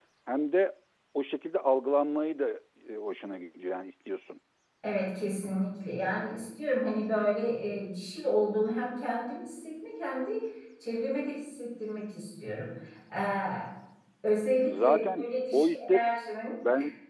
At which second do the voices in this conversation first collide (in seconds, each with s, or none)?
14.7 s